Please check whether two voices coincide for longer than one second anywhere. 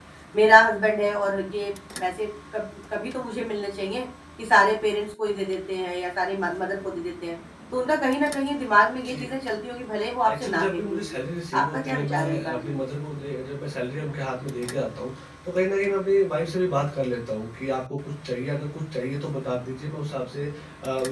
Yes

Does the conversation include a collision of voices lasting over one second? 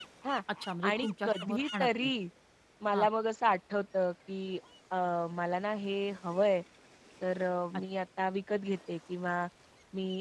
Yes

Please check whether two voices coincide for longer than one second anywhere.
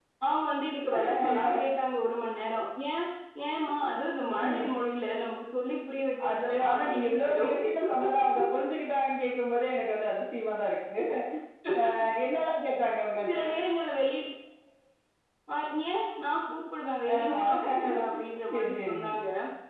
Yes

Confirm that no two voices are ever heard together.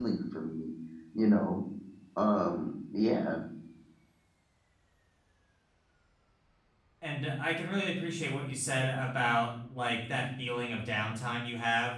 Yes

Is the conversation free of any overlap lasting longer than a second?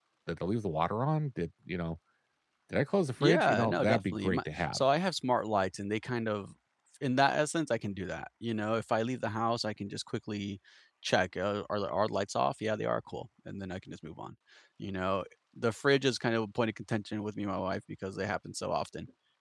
No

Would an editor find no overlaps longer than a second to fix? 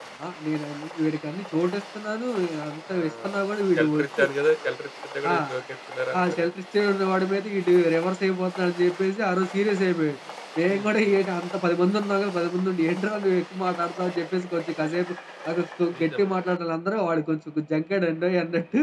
Yes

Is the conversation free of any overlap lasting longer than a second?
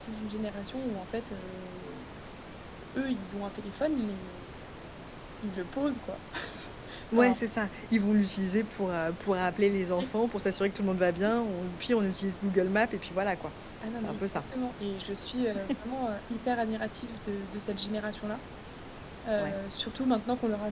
Yes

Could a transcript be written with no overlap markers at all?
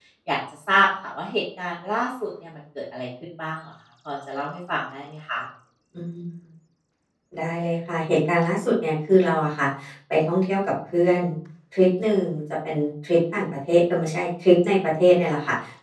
Yes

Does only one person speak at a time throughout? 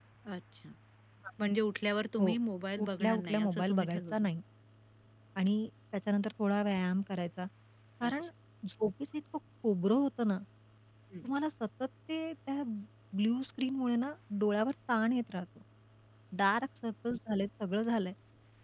No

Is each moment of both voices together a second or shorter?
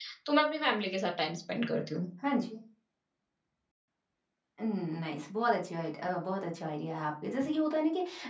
Yes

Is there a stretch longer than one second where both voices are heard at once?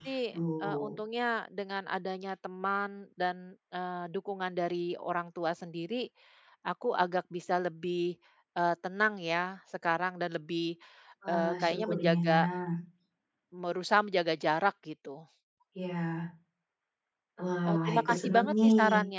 Yes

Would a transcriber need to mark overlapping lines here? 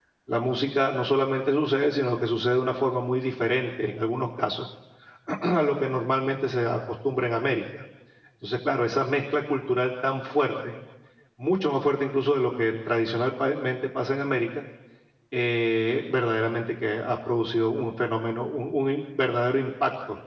No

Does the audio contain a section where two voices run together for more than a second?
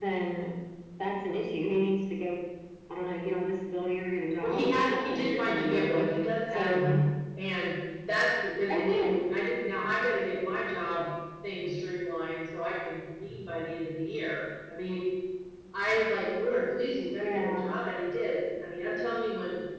Yes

